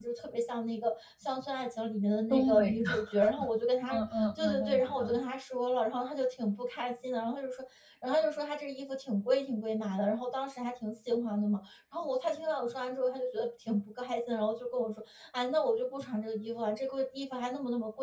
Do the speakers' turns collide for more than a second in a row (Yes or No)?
Yes